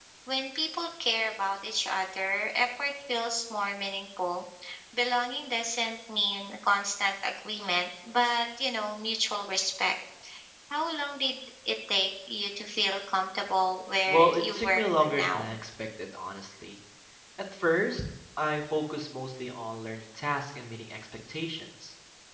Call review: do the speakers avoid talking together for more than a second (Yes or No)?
No